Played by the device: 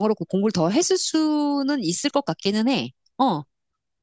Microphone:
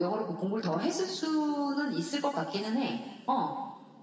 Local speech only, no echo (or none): none